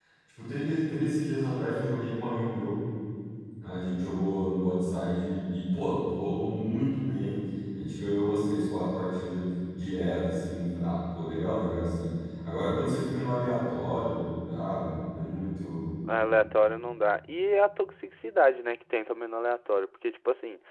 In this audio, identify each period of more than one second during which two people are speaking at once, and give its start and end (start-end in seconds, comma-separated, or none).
none